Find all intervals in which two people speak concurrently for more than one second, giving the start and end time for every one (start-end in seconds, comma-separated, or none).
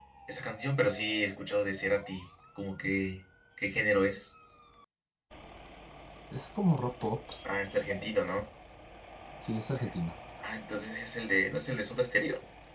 none